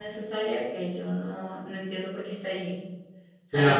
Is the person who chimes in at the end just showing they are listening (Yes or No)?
No